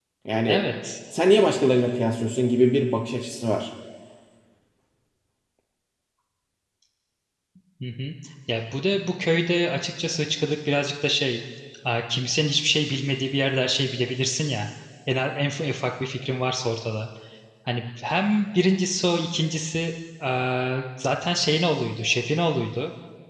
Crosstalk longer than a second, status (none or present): none